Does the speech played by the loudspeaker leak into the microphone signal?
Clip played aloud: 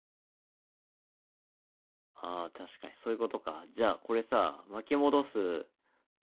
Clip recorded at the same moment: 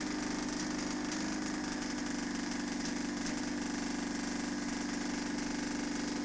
No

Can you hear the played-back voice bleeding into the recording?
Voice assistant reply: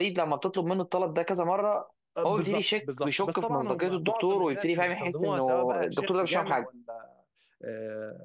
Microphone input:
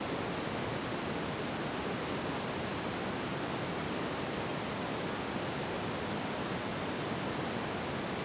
No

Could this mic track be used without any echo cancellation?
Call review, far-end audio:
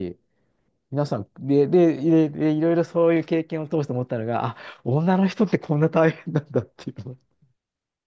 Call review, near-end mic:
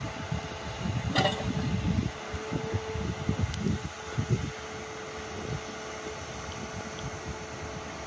Yes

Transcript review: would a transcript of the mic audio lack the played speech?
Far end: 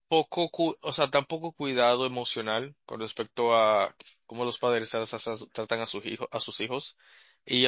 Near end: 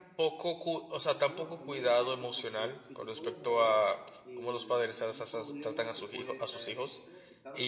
No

